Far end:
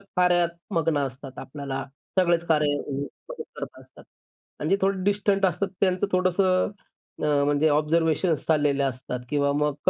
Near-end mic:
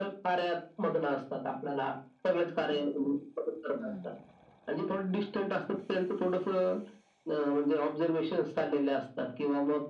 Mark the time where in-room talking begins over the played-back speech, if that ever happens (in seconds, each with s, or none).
3.8 s